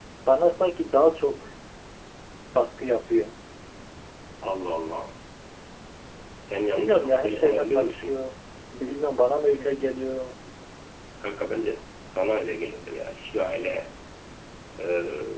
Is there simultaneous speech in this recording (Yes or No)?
Yes